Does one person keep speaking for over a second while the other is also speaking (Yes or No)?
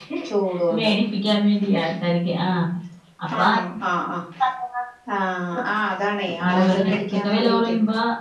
Yes